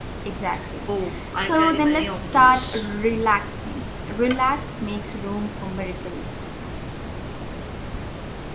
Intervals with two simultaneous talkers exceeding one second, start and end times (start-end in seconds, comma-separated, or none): 1.5-2.9